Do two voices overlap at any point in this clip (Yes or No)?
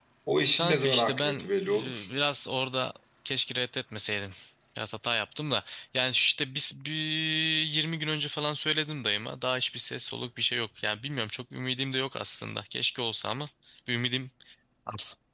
Yes